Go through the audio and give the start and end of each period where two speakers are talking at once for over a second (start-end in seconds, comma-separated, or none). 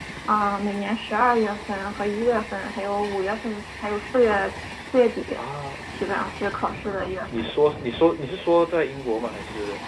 none